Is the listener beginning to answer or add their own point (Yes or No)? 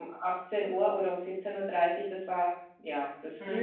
Yes